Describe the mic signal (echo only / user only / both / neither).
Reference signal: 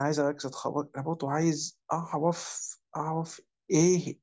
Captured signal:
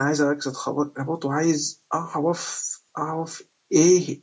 echo only